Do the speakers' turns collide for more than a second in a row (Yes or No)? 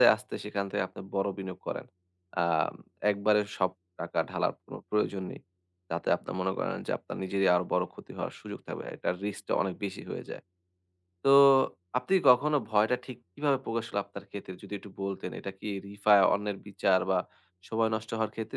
No